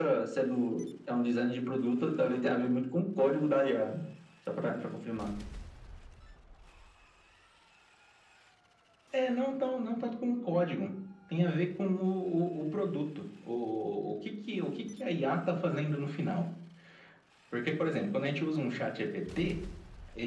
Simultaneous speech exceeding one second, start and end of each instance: none

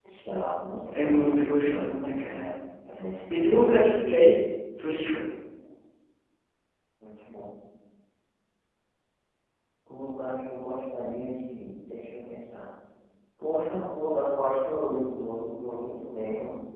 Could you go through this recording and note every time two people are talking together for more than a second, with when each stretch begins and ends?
0.9-2.5

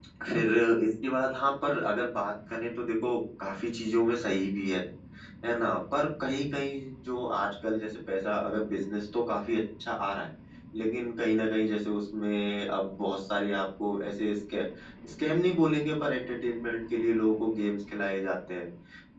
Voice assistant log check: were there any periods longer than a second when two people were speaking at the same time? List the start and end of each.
none

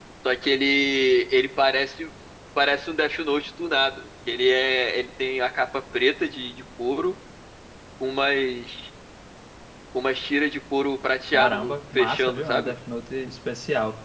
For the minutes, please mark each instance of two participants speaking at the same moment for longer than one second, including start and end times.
11.3-12.7

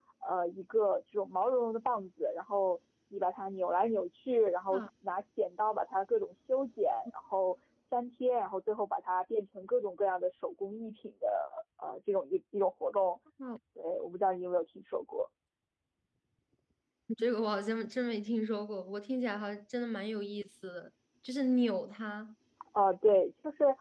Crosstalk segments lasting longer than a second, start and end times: none

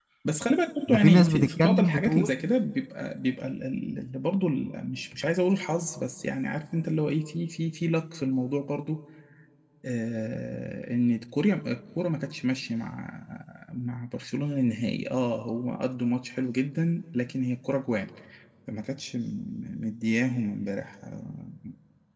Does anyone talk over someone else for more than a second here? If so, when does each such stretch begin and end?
0.9-2.4

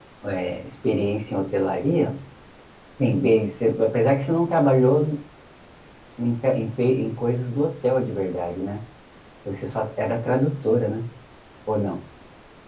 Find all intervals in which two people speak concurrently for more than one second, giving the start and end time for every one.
none

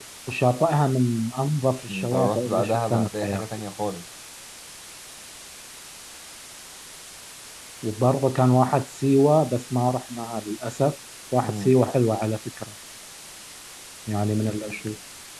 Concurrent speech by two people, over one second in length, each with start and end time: 1.9-3.5

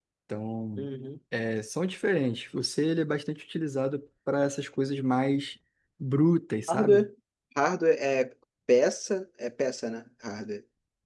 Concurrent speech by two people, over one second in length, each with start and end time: none

